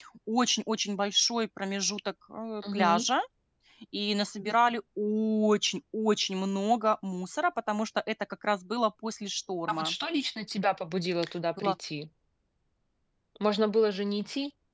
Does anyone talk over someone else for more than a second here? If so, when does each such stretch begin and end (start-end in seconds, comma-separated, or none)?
none